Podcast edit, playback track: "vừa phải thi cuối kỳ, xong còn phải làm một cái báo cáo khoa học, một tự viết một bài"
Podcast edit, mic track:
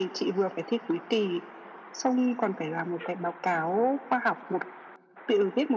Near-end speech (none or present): none